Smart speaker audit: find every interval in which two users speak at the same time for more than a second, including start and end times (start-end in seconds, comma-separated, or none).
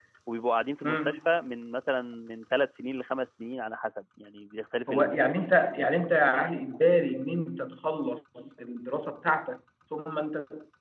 none